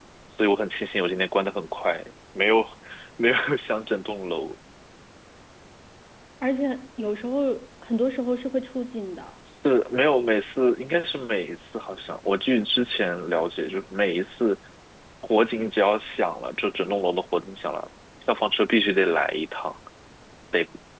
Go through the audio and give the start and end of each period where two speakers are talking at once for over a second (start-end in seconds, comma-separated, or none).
none